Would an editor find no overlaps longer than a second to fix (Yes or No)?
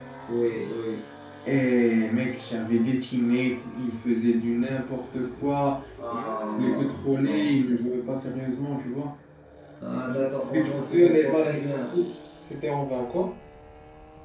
No